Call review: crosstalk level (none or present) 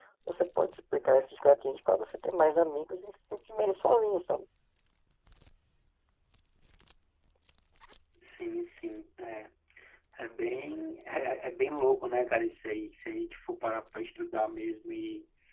none